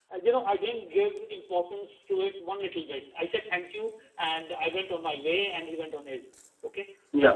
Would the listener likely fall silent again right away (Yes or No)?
Yes